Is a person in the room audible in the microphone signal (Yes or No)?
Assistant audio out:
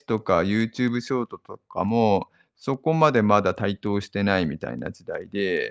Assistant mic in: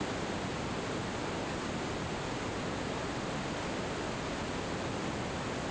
No